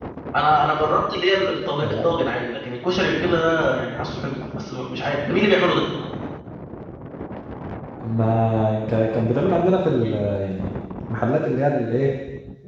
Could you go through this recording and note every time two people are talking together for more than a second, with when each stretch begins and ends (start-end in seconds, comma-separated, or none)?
none